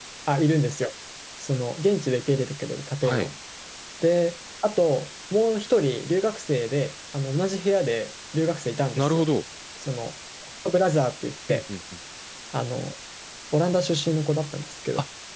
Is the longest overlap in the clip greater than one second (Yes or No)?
No